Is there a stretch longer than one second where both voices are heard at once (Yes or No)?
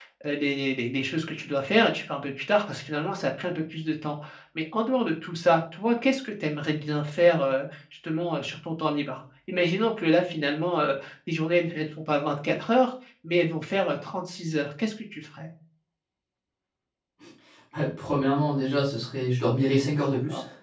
No